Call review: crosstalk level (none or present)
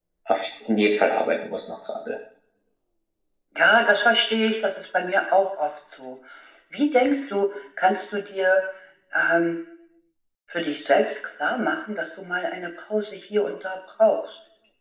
none